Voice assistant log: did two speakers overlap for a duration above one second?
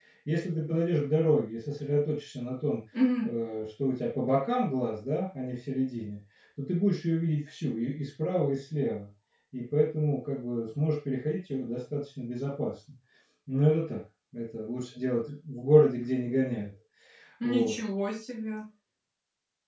No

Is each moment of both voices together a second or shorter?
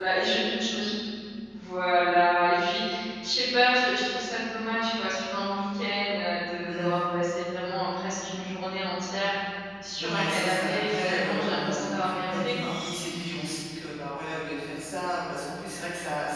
No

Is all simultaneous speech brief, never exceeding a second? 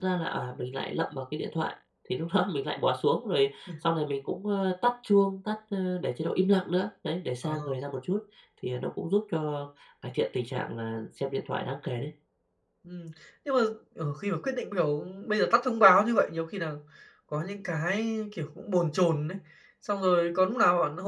Yes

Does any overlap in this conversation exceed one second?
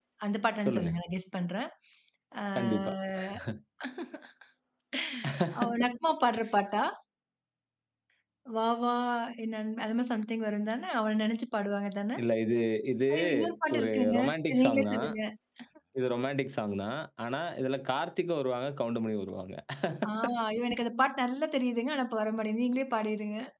Yes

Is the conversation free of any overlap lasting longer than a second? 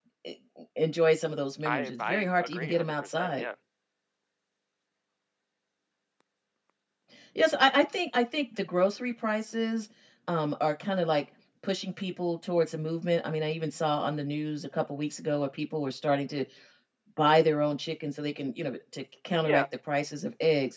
No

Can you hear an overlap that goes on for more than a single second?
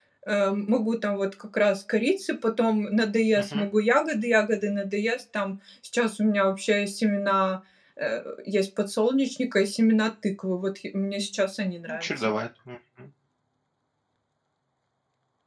No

